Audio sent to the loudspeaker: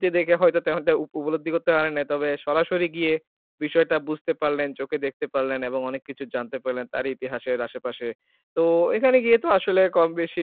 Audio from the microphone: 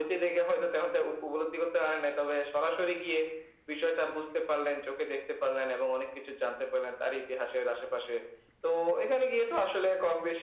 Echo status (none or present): present